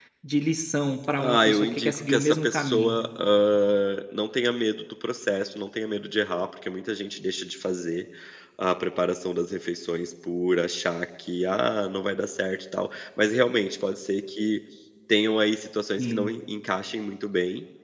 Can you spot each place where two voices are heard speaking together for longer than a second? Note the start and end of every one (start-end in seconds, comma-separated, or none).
1.2-3.0